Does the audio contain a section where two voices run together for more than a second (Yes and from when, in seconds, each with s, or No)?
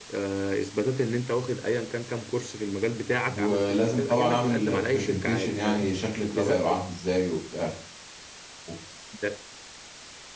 Yes, from 3.4 s